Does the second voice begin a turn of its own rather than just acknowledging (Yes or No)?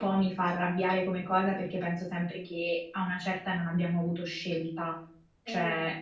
No